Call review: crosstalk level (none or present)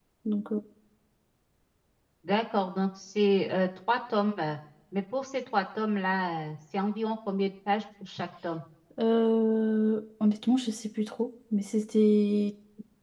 none